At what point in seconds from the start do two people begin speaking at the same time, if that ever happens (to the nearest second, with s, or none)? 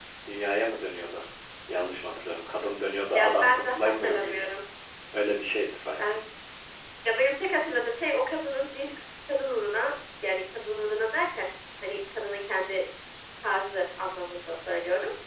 3 s